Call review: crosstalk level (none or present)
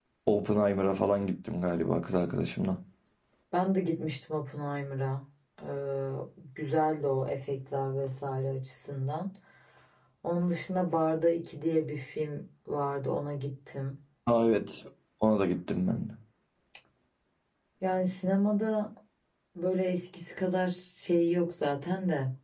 none